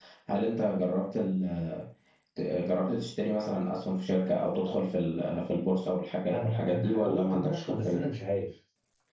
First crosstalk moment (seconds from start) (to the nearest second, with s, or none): 6 s